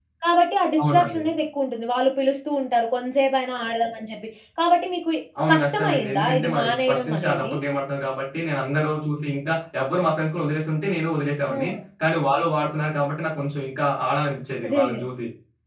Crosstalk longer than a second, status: present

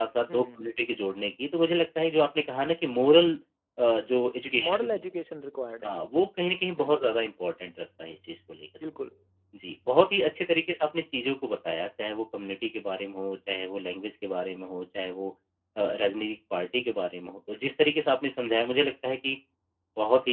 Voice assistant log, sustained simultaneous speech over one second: none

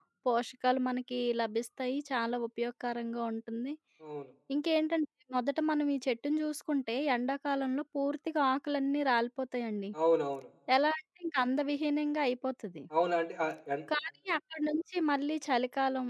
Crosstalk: none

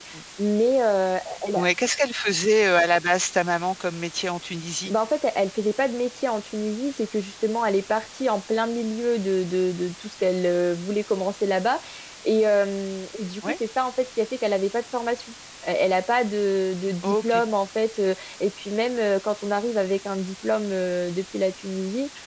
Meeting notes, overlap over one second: none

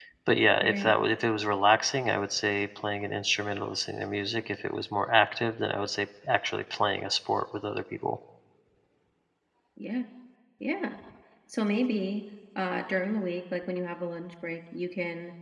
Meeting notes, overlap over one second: none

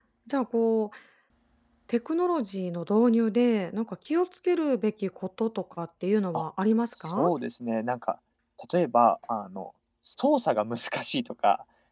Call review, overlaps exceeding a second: none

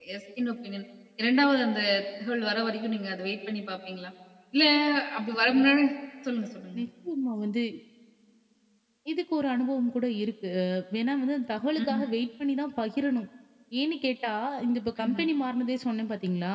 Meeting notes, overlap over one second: none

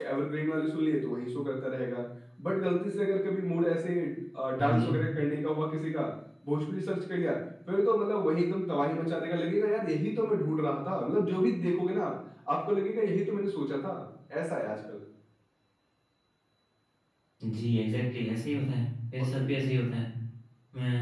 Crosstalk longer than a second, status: none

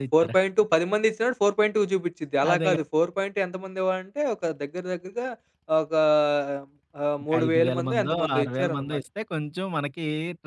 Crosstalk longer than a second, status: present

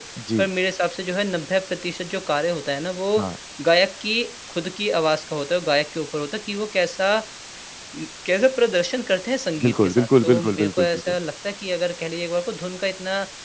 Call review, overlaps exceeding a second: present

